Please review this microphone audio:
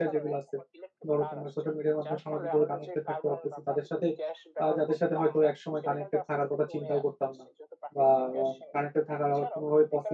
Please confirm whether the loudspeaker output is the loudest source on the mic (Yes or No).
No